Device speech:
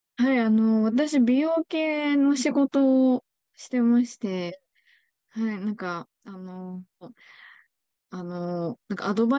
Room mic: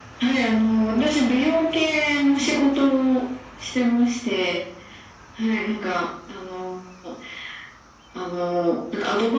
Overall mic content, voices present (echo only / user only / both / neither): echo only